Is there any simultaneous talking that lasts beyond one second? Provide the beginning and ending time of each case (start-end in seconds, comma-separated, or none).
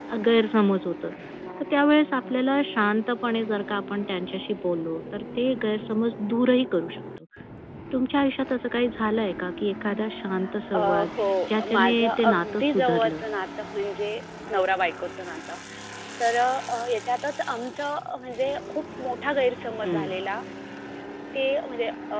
11.7-13.2